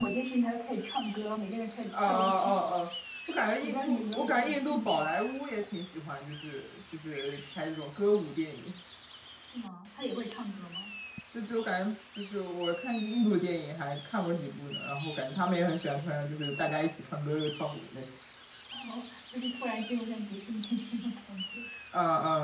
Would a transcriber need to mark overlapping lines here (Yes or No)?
Yes